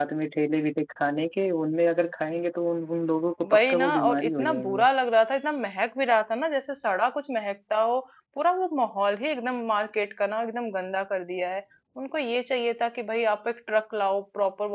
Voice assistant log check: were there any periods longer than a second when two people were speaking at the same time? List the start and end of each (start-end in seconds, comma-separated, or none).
3.5-4.8